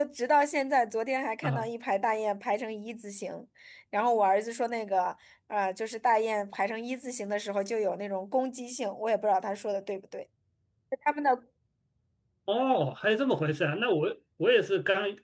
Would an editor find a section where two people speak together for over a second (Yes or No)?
No